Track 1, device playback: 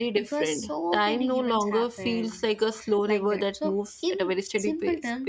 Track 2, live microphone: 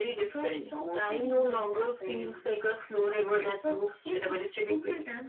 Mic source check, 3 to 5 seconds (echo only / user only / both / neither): echo only